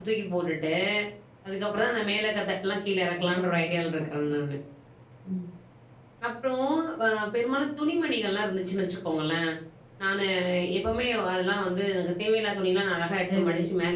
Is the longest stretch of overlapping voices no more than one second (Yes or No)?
No